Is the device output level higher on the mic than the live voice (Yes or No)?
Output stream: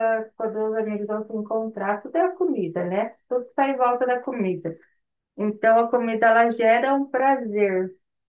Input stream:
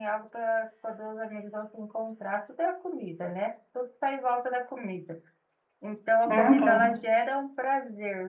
No